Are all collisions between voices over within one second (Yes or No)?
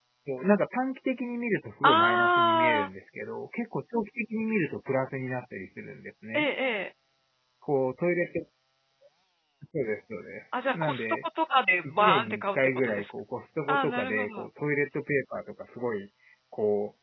No